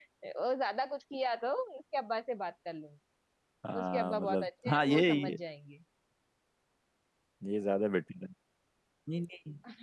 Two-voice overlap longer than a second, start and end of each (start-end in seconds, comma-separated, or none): 3.8-5.4